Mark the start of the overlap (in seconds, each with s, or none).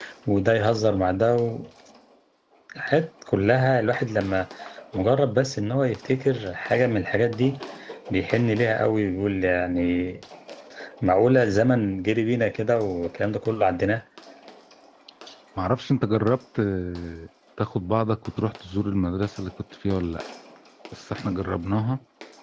none